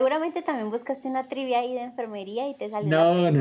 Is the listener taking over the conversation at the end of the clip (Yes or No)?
Yes